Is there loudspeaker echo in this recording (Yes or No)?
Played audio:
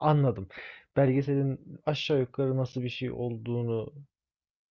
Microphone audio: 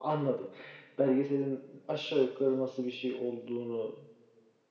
Yes